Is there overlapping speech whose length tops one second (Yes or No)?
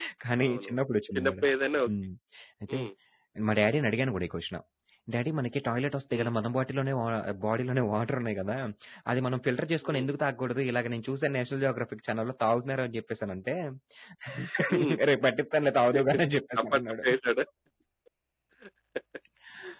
No